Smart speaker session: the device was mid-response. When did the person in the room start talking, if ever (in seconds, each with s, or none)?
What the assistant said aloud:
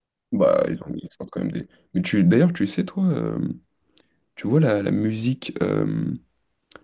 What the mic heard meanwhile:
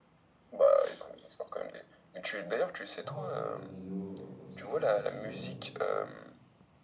3.0 s